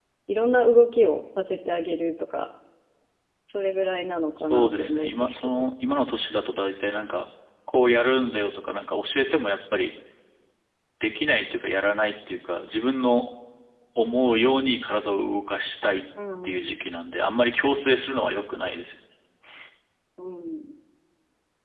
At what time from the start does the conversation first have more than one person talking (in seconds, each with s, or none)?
4.4 s